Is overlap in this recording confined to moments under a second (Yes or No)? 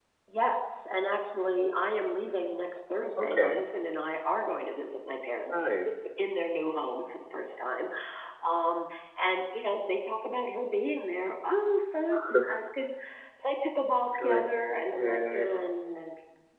Yes